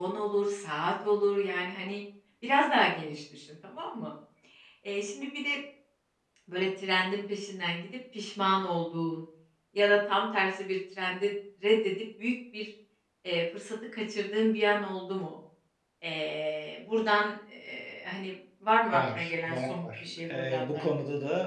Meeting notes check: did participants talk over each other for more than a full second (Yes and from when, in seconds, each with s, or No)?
Yes, from 18.9 s